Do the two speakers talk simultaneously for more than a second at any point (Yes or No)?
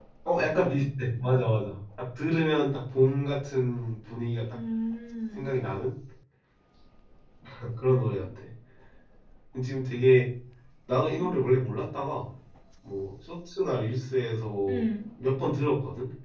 No